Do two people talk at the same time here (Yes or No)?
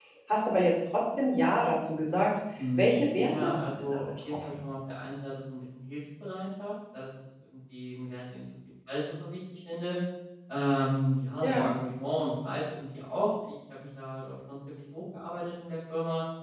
Yes